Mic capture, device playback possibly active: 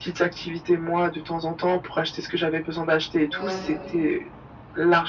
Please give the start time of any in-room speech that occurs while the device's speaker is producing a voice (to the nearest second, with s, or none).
3 s